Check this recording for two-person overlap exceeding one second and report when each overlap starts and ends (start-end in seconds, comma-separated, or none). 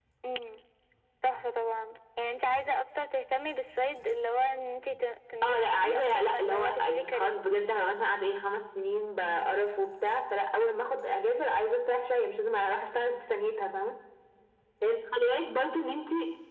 5.4-7.4